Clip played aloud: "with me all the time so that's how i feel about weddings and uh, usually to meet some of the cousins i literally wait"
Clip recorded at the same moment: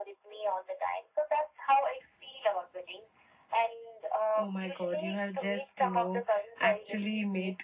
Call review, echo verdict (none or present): present